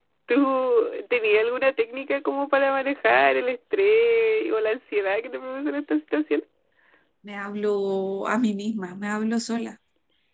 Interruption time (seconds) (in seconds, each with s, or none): none